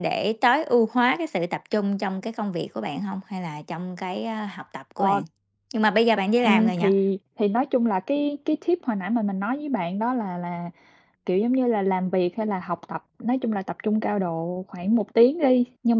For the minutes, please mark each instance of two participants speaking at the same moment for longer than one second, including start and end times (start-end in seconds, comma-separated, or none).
none